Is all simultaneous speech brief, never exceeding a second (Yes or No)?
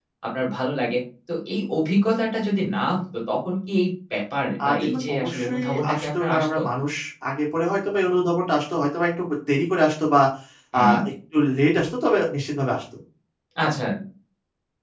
No